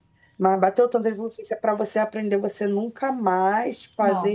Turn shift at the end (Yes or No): No